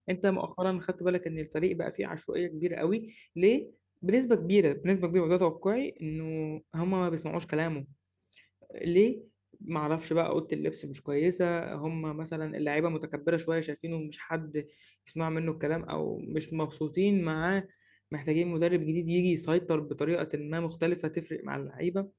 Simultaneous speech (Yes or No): No